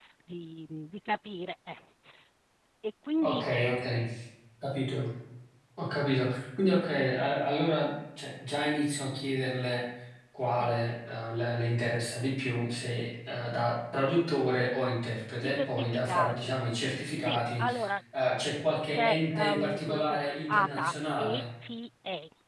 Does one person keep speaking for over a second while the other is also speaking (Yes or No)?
Yes